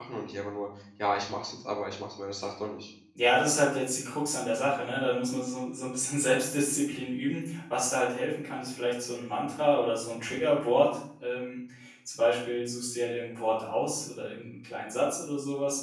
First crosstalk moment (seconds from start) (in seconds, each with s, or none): none